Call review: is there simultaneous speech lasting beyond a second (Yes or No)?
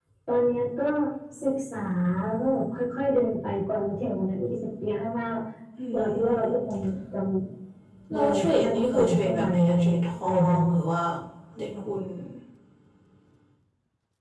Yes